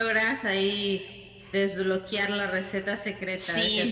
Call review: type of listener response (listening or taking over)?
taking over